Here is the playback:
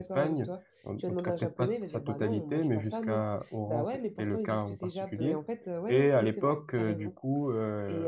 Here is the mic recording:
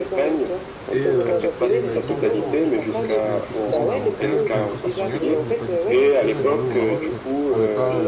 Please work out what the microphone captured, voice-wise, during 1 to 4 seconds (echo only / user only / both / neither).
both